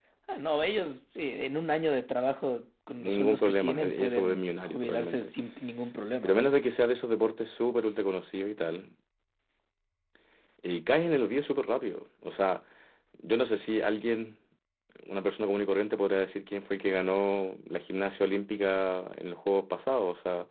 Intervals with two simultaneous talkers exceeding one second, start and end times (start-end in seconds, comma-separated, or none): 3.0-5.3